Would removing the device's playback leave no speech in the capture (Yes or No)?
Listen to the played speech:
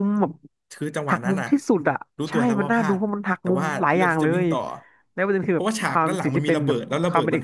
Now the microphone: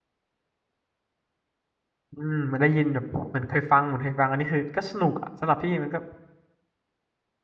No